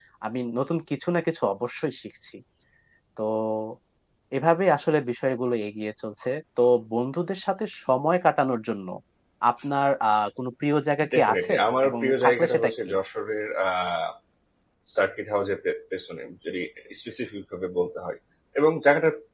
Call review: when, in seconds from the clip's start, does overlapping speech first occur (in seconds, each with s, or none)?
11.0 s